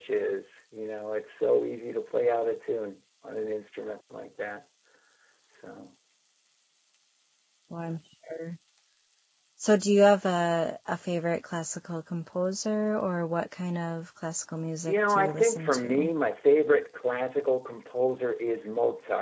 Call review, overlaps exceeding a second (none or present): present